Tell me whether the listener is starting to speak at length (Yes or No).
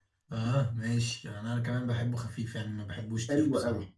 Yes